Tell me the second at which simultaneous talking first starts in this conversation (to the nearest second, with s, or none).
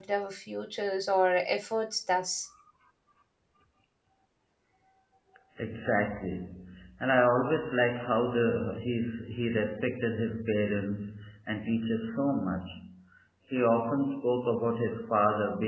none